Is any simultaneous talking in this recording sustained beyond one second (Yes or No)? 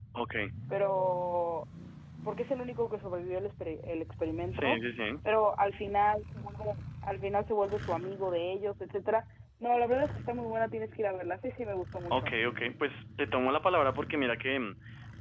No